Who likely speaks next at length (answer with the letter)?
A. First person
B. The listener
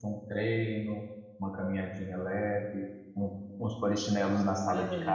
A